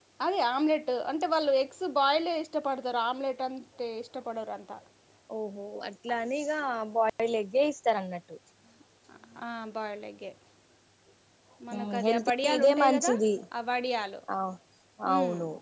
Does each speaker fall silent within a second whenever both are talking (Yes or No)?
No